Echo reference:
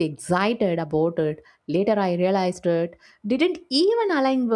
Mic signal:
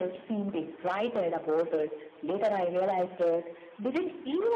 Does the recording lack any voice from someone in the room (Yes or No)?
Yes